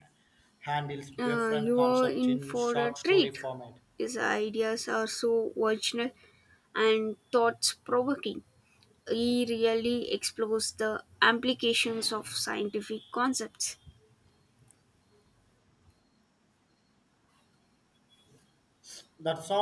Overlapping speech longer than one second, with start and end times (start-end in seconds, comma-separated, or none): 1.2-3.4